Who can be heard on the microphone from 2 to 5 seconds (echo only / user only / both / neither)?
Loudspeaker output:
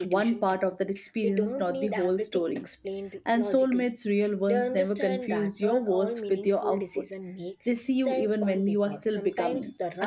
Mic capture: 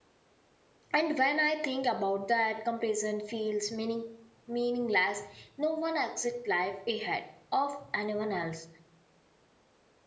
user only